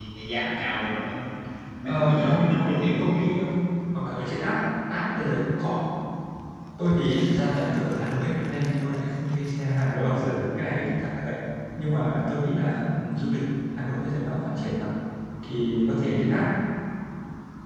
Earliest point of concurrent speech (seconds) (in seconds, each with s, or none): 1.8 s